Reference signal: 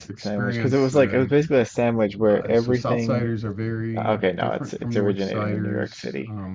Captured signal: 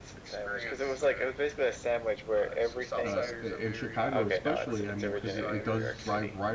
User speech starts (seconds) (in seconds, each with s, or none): 3.0 s